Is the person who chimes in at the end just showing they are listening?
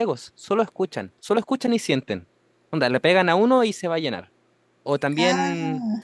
Yes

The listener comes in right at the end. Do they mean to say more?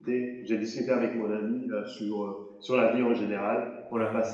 No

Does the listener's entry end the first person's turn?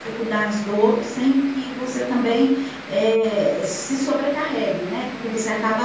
No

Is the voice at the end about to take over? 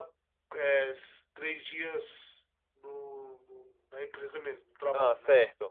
No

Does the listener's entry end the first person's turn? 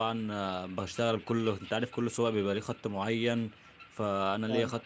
No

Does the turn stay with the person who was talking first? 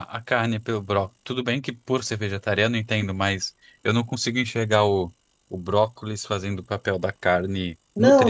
No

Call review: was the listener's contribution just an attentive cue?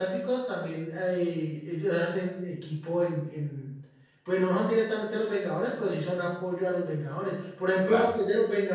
Yes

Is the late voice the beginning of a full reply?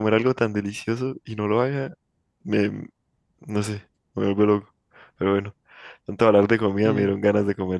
No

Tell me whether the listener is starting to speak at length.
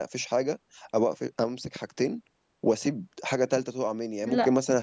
No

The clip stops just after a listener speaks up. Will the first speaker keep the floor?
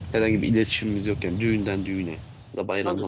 No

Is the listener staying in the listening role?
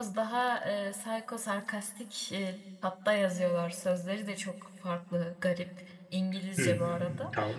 No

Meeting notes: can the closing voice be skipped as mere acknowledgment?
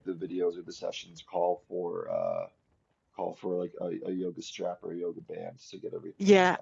No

